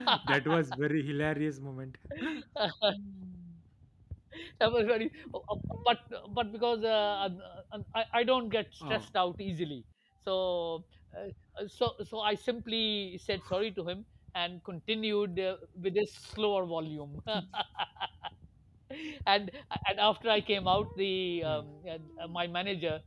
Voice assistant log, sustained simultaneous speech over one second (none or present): none